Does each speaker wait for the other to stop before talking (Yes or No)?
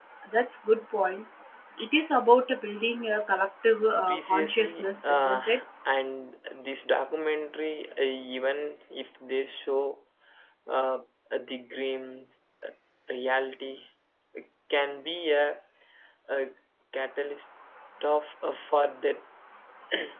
No